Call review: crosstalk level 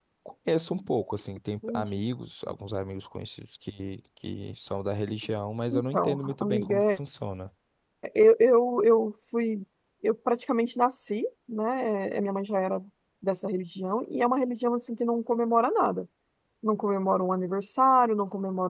present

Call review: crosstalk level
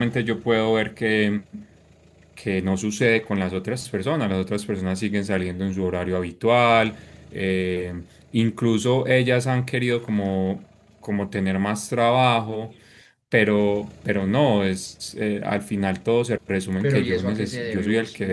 present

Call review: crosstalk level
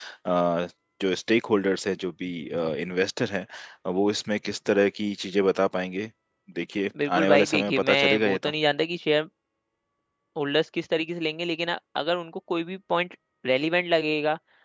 present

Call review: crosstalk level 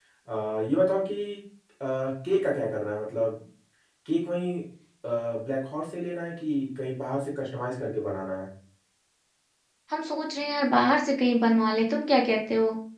none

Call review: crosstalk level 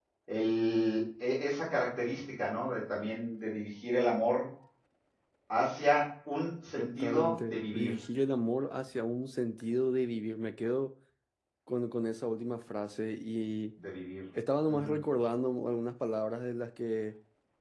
present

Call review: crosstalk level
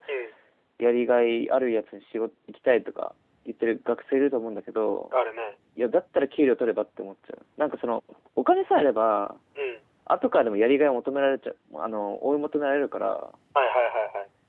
none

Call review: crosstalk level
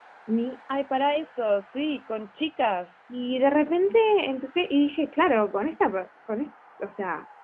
none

